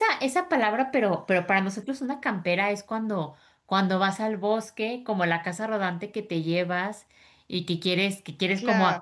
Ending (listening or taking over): listening